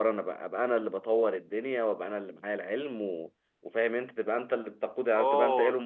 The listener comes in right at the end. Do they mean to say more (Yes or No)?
Yes